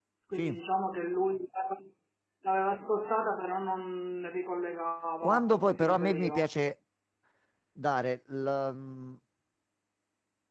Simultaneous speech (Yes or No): Yes